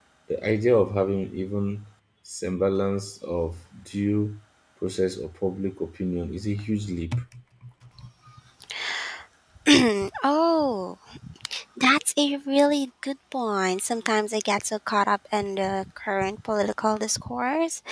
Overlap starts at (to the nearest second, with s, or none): none